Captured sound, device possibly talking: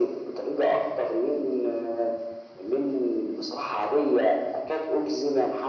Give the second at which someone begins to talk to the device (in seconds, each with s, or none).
none